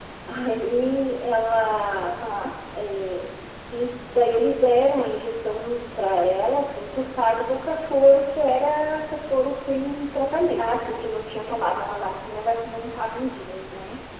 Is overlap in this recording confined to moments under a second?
Yes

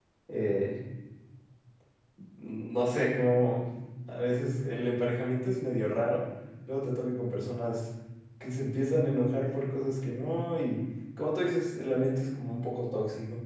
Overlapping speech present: No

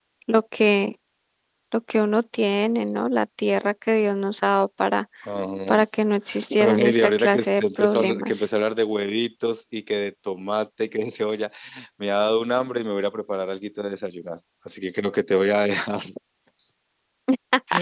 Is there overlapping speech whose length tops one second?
Yes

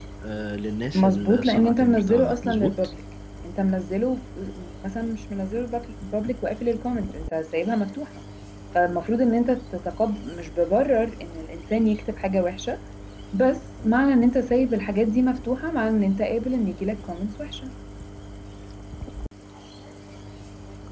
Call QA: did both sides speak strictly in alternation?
No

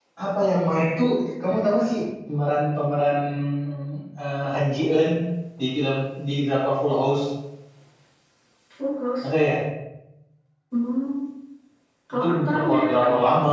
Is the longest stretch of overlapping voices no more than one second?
No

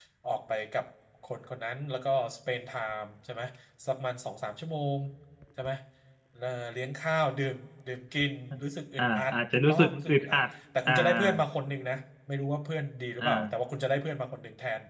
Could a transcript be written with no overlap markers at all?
No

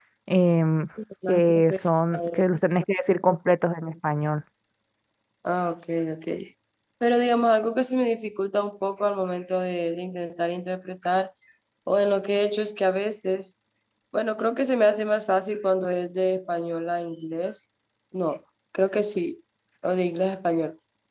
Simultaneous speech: Yes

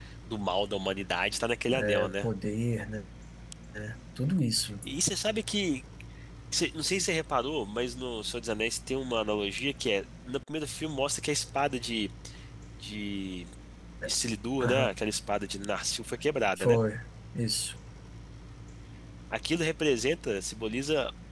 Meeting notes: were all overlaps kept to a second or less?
Yes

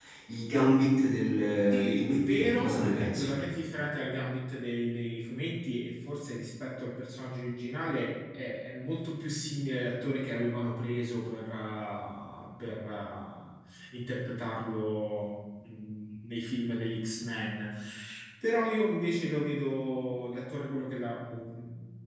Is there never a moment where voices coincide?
No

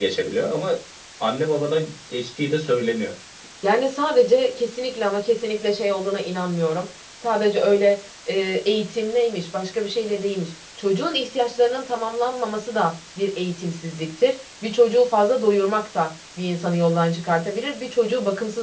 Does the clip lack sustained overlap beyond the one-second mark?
Yes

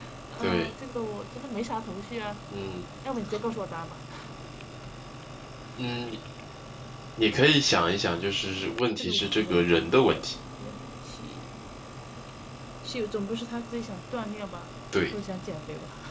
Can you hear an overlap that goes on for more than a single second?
Yes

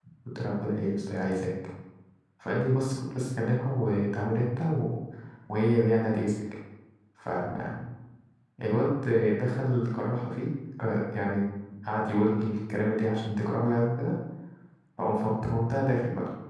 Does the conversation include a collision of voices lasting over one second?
No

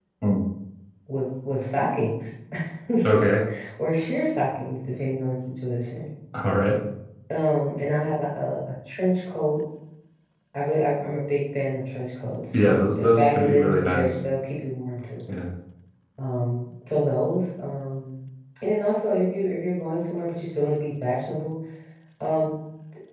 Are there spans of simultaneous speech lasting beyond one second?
Yes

